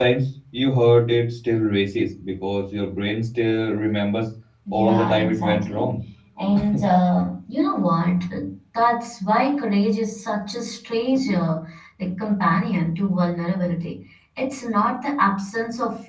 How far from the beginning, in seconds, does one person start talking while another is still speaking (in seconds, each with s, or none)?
4.7 s